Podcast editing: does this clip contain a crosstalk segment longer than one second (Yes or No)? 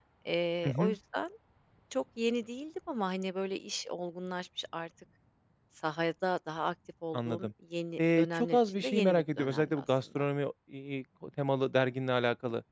Yes